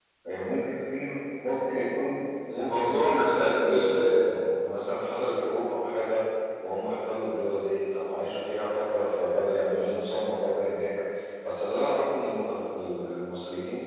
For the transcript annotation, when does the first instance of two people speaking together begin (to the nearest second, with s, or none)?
2 s